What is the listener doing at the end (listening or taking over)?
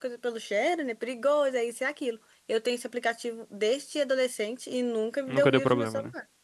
taking over